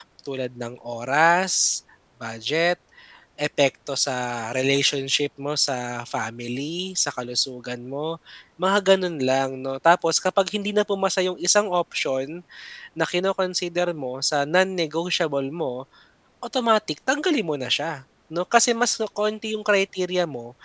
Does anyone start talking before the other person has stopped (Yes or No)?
No